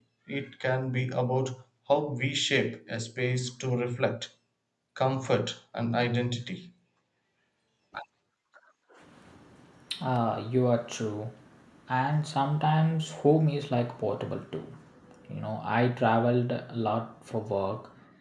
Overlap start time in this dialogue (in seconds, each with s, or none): none